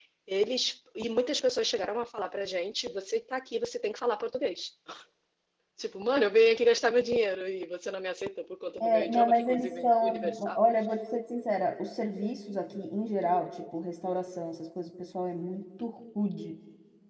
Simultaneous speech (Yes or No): Yes